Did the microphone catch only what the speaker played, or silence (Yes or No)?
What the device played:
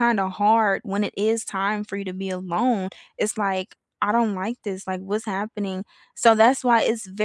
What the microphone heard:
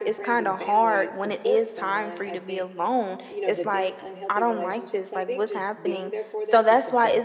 No